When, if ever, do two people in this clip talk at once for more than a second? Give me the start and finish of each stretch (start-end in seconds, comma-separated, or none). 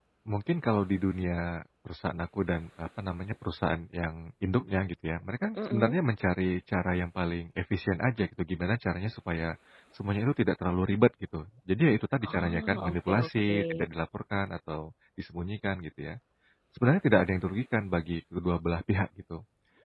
12.2-13.6